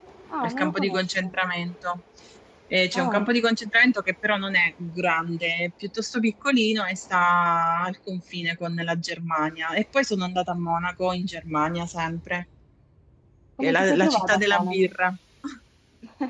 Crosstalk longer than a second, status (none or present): present